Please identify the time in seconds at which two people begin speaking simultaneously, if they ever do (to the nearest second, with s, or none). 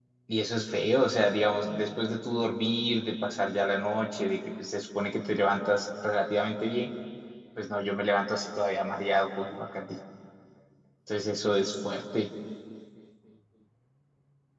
none